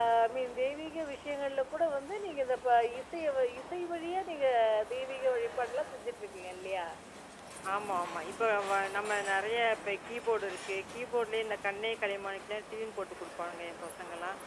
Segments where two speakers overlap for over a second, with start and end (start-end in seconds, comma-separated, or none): none